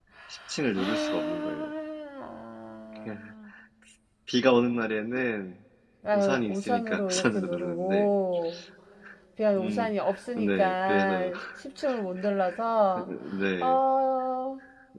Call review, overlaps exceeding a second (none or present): present